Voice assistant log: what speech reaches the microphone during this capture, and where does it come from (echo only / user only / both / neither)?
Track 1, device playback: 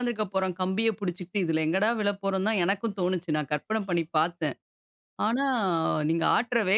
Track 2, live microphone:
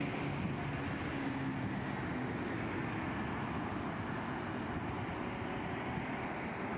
neither